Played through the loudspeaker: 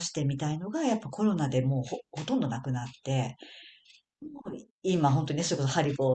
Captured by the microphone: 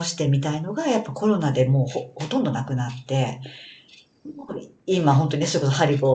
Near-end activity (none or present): none